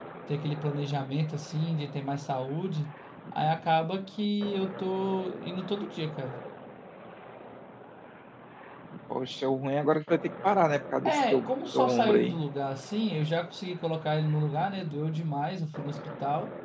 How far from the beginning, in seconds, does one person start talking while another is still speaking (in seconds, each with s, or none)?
11.0 s